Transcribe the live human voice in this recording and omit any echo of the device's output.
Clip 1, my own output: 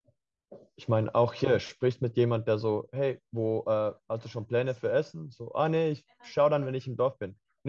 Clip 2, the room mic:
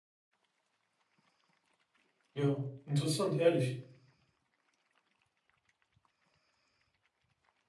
ja. Interessant, ehrlich.

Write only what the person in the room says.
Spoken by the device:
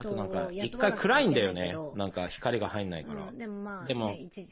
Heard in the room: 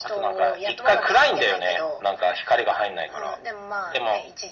none

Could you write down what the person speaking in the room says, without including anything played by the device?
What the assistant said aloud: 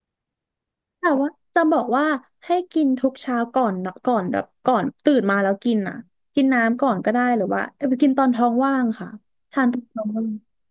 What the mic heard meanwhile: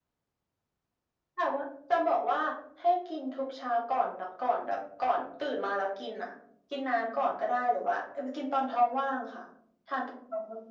none

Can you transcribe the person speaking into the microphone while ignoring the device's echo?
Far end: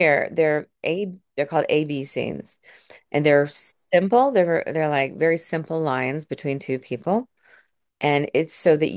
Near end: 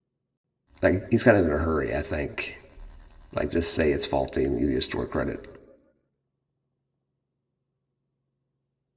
like he's kind of in a hurry, I think. Like, just say it's faulty and give you a store credit.

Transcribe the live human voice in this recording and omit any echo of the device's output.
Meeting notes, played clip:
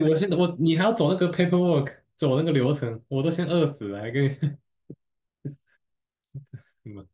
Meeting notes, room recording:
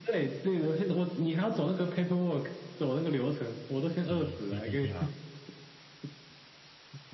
C CPT 嘛，

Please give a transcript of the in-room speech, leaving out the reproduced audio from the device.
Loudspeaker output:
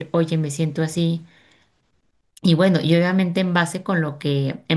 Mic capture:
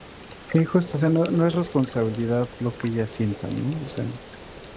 sí, justo, o sea, no, no es responsabilidad lo que ellas sientan, ¿no? O sea,

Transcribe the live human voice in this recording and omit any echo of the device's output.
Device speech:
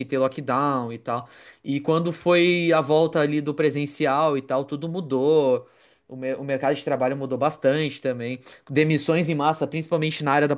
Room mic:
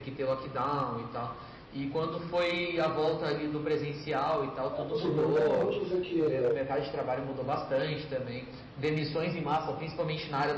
É possível, então não vou dizer que

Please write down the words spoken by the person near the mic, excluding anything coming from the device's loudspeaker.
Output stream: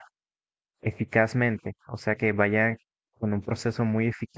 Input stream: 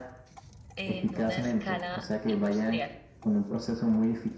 en una escala industrial.

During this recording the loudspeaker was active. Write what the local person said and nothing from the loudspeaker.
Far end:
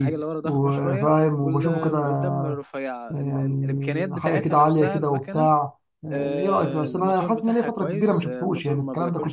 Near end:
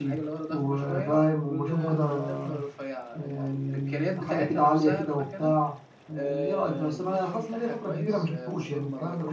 none

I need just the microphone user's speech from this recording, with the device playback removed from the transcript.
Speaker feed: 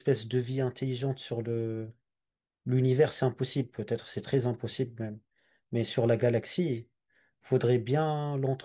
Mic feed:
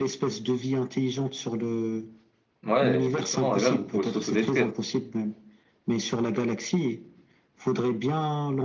Ouais, exactement, et même on pourrait s'autodétruire.

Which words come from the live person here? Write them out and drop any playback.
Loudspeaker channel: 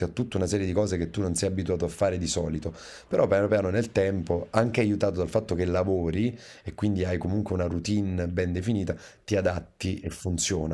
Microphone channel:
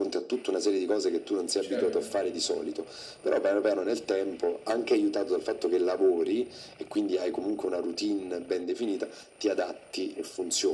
Certo.

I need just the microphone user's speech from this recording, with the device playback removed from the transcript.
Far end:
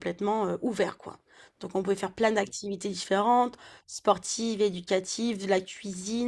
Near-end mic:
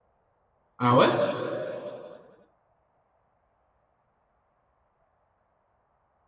Ah ouais?

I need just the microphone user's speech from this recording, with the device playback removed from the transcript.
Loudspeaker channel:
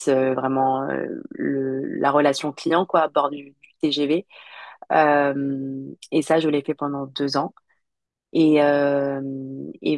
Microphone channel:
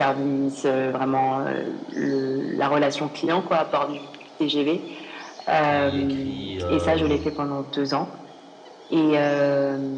qui écrit euh,

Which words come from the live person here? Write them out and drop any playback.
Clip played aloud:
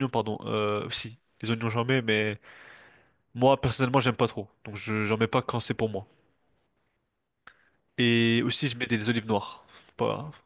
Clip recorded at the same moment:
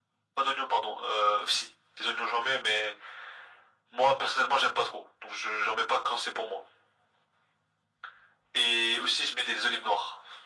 none

